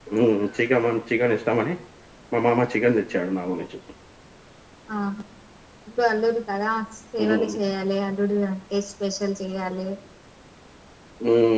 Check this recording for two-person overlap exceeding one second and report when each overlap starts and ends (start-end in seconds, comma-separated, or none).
none